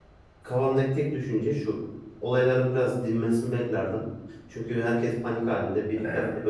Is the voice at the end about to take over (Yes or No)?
No